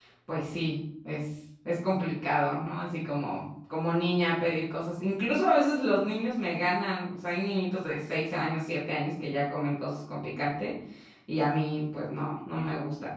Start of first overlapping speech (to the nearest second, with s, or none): none